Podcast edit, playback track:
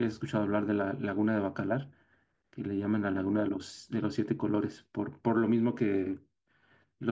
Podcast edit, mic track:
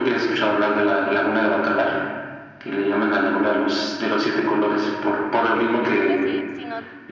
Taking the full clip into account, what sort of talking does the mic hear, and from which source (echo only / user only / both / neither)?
both